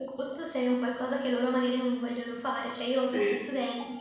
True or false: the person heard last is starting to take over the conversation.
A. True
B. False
B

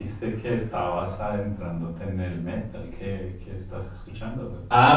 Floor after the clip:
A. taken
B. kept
A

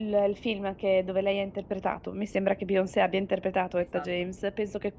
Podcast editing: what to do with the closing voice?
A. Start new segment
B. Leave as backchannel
B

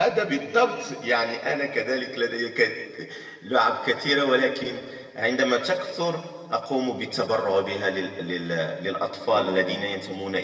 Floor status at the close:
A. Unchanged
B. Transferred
A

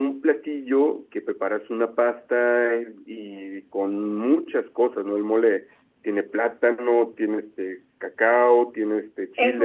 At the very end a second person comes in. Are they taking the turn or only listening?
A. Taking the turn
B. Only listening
A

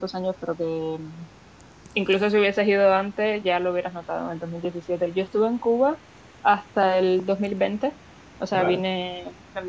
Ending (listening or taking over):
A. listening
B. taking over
A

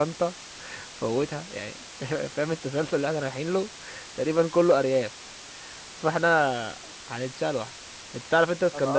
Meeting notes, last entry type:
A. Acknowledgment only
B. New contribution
A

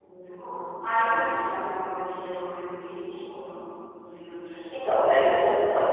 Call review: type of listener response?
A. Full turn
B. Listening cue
A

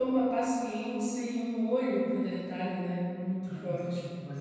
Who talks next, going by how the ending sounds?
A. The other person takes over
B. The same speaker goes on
A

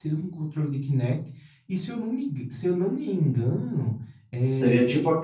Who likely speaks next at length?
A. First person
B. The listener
B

